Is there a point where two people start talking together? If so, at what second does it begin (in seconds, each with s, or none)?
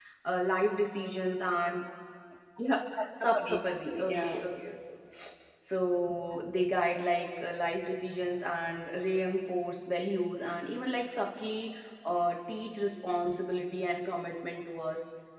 3.2 s